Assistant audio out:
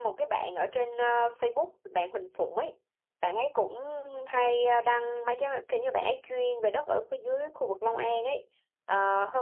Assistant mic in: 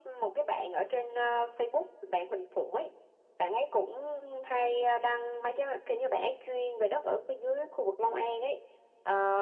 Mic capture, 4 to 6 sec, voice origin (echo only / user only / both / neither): echo only